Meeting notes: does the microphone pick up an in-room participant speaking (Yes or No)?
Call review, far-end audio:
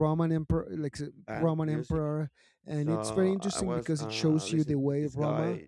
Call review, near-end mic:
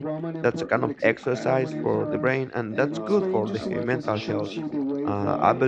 Yes